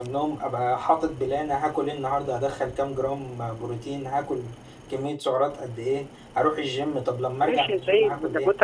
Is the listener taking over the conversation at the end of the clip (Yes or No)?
Yes